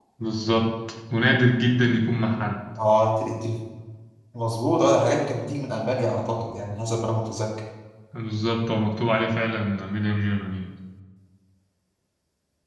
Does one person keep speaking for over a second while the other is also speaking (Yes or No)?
No